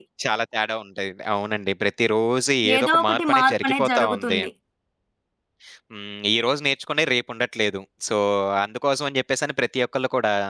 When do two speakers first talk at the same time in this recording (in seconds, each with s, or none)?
2.6 s